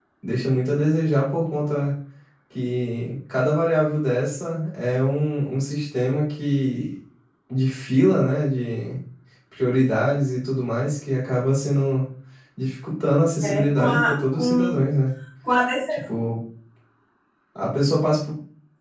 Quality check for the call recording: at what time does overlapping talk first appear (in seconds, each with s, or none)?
13.4 s